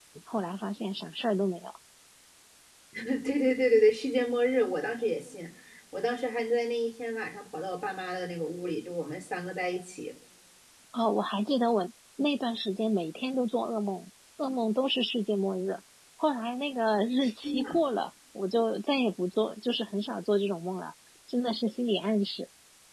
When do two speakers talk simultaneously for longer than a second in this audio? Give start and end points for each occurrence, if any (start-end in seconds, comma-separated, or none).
none